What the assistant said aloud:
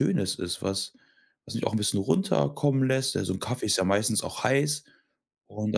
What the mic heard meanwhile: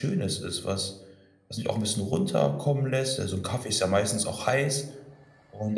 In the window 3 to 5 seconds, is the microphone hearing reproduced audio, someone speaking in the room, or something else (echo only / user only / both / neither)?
echo only